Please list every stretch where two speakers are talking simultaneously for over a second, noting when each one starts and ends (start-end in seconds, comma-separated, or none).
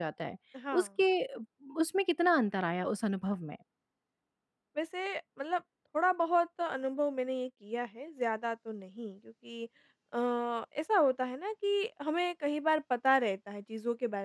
none